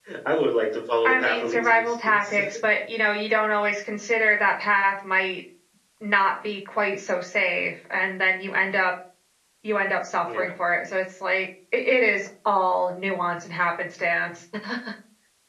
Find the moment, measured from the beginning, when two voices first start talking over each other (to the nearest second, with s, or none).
1 s